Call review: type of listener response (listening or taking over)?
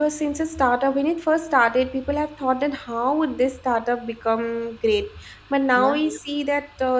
listening